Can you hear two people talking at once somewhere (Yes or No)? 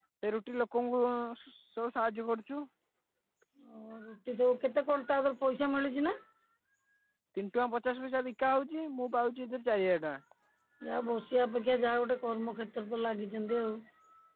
No